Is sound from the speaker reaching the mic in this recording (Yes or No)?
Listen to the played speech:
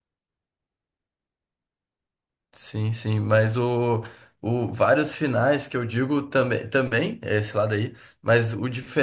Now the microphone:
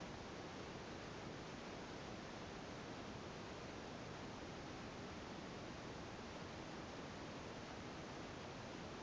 No